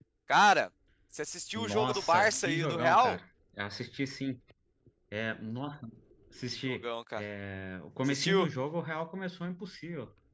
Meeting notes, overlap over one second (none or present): present